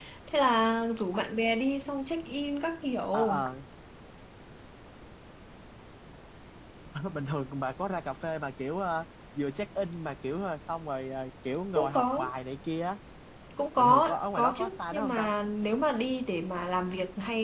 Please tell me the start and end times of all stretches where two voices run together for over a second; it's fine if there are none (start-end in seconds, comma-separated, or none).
13.8-15.3